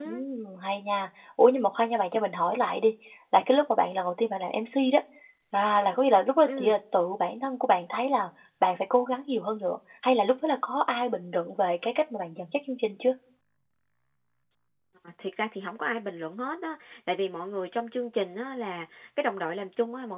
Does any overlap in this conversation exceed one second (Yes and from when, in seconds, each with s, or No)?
No